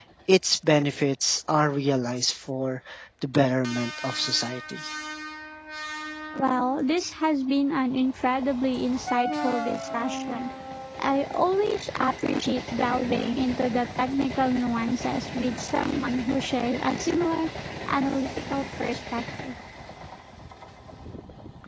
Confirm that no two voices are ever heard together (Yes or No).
Yes